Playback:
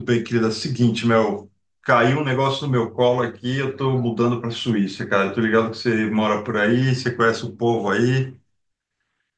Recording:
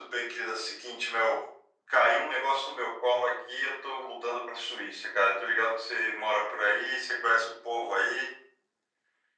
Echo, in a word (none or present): present